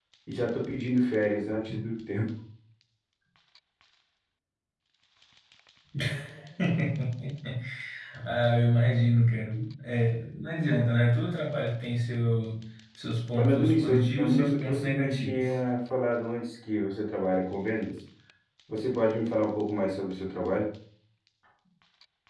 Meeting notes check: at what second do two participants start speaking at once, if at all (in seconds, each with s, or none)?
13.4 s